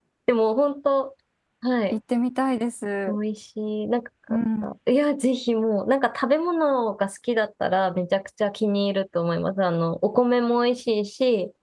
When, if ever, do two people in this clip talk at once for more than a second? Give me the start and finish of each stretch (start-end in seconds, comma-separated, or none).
none